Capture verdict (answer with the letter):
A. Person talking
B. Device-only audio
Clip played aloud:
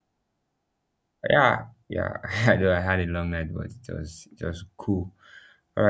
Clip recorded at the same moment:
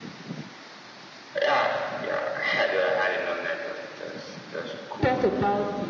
A